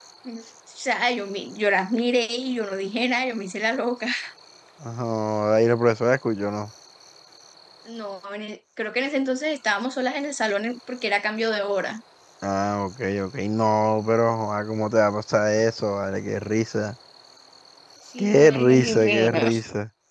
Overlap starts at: 18 s

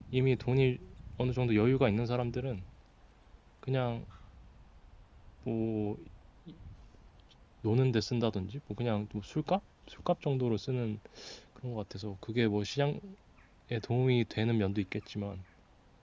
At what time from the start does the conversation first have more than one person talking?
none

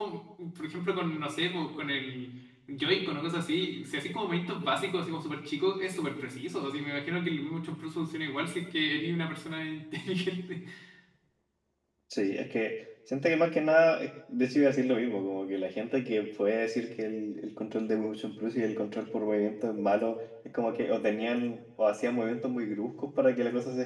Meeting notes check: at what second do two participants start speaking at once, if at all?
none

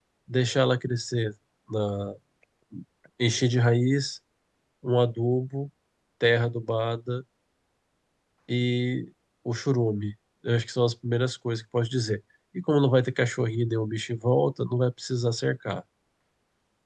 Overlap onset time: none

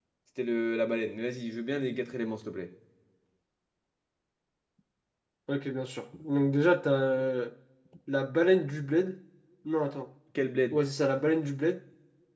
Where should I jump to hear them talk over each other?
none

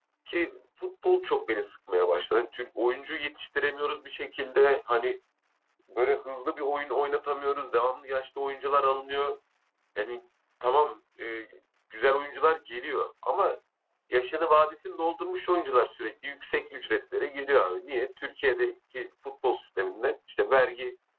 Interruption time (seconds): none

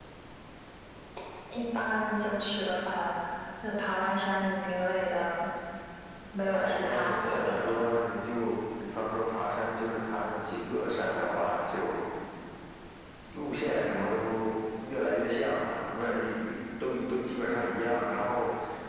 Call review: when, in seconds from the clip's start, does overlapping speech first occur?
7 s

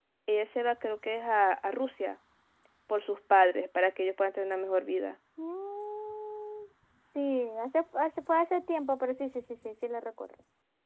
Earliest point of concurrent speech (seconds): none

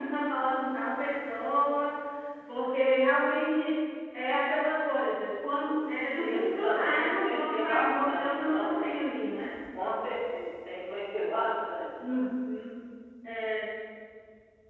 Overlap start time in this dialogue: 6 s

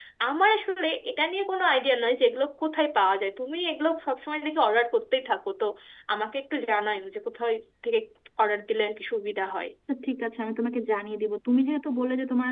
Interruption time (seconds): none

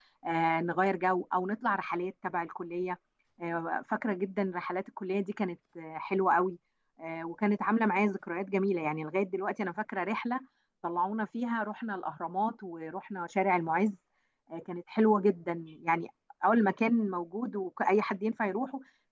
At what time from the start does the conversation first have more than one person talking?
none

